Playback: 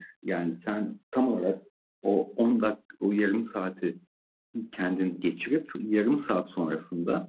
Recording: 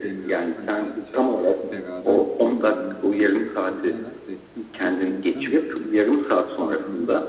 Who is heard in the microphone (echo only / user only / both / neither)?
both